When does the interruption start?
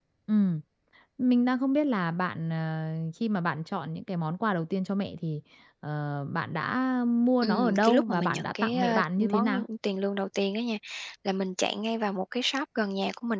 7 s

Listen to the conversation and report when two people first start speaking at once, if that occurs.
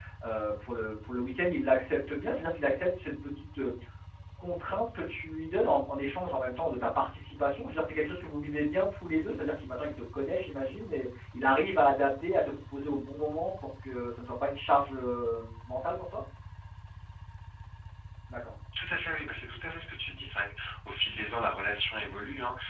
none

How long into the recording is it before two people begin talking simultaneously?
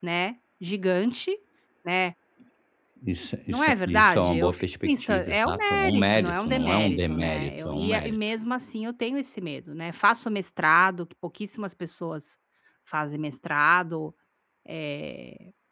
3 s

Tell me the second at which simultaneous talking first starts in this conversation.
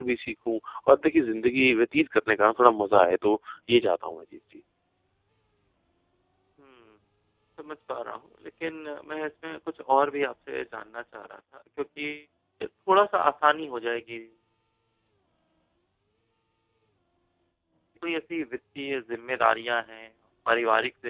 none

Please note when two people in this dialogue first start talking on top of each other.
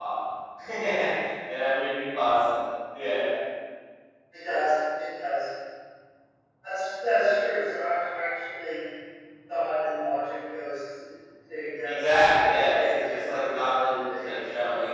12 s

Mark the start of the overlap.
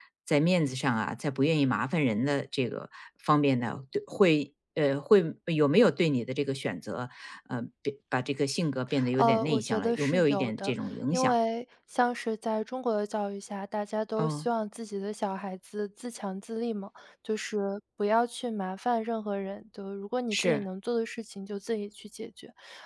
9 s

